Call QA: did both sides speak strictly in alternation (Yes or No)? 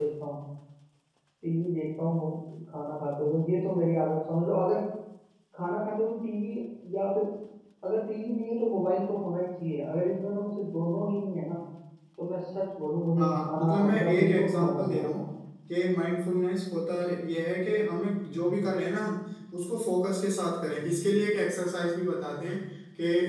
No